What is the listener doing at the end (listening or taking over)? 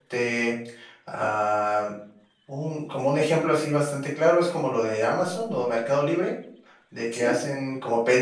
listening